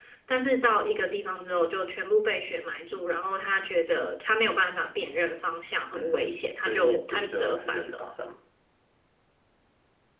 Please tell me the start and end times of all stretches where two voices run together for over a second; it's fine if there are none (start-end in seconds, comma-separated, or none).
5.9-8.0